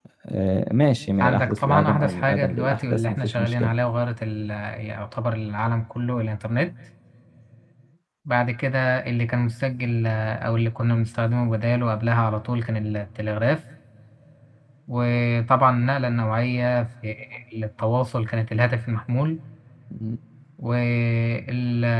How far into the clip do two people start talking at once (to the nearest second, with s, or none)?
1 s